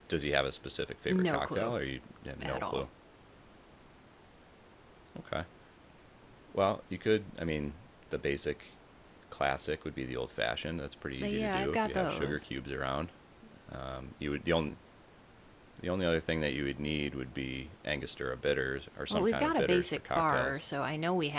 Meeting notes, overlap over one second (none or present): present